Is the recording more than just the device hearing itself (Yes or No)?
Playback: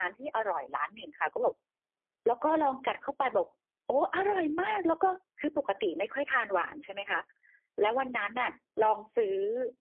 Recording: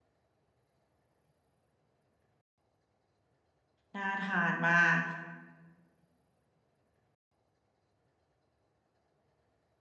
Yes